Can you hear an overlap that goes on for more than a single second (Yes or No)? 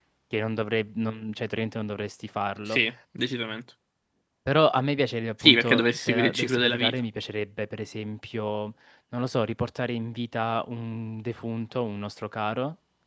Yes